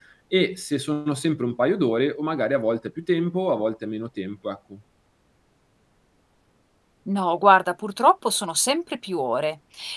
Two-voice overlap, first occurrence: none

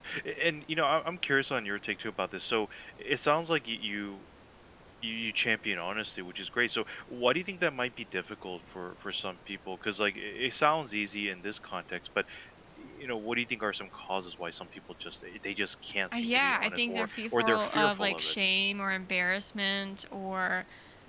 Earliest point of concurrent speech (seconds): 16.1 s

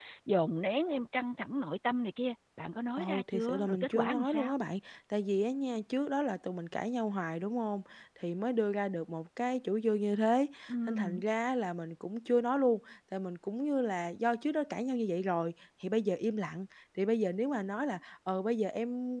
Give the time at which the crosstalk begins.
3.0 s

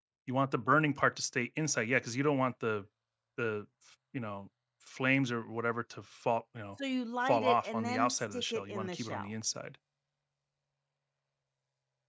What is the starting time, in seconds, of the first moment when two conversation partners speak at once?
7.3 s

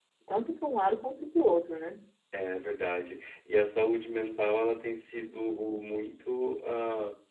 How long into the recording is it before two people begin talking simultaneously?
none

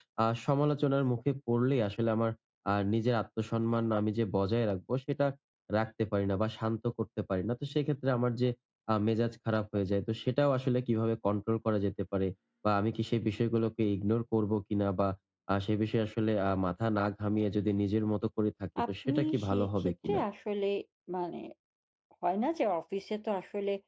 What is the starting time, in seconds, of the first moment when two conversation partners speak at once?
18.8 s

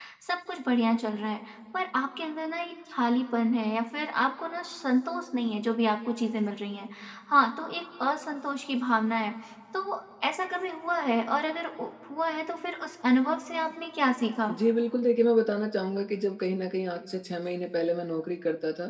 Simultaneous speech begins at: none

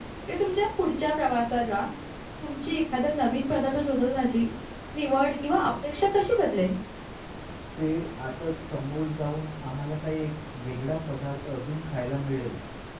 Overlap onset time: none

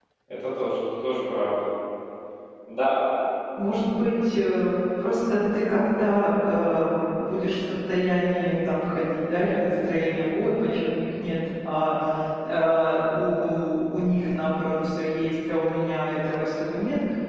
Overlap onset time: none

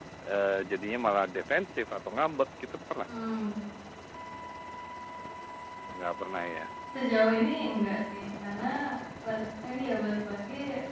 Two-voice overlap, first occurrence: none

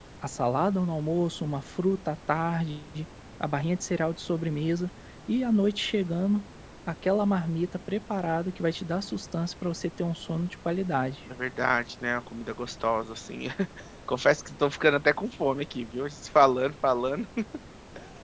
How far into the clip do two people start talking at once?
none

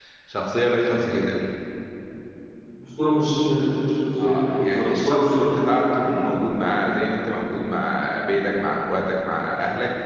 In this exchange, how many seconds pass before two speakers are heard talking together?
4.2 s

